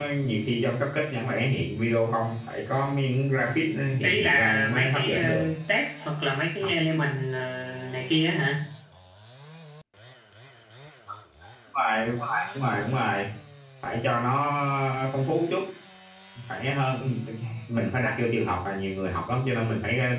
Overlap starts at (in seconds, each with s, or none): 4.0 s